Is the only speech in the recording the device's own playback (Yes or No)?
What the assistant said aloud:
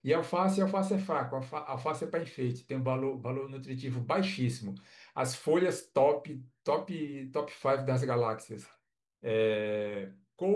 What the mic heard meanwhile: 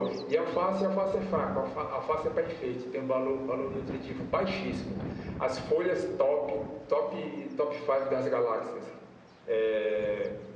Yes